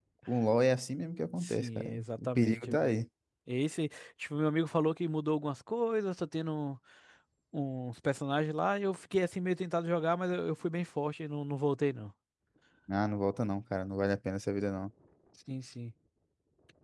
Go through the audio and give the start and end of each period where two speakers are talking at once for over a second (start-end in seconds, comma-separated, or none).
1.4-3.0